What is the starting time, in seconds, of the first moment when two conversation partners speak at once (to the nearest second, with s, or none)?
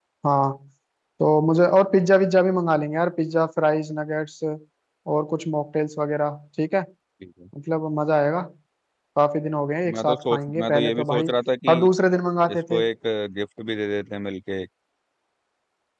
10 s